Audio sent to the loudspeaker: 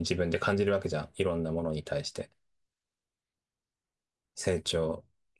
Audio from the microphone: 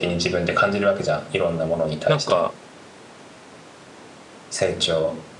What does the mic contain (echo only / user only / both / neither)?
both